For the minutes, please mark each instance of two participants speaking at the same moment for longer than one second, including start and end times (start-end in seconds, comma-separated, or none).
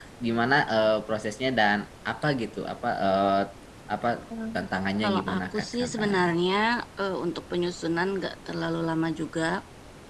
5.0-6.3